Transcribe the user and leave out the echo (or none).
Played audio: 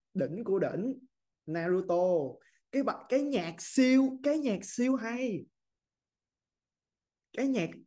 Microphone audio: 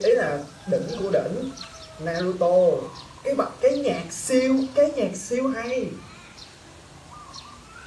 none